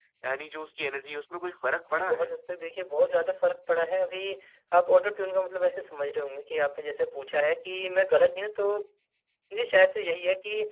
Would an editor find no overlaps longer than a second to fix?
Yes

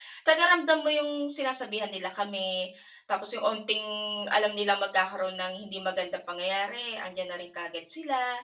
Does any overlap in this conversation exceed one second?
No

